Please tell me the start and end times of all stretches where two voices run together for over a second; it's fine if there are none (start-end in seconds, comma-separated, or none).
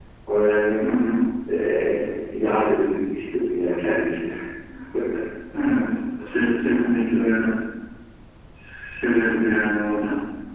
none